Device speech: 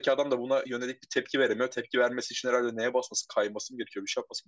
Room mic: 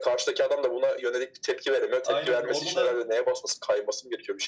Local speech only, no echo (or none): Aynen orada da